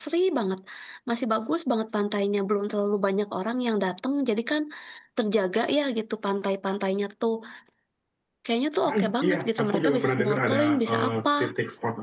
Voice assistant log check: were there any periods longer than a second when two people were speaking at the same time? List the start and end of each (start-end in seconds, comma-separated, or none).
8.9-11.3